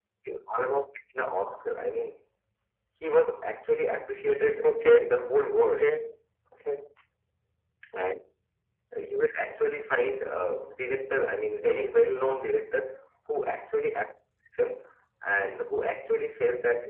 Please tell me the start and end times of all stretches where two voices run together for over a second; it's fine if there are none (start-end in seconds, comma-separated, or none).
none